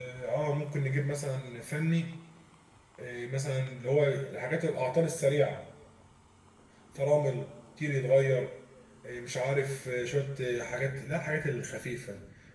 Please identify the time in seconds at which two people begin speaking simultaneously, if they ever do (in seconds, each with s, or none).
none